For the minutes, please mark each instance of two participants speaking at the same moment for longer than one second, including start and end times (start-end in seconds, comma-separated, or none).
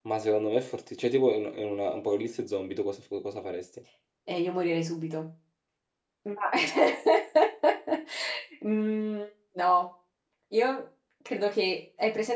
none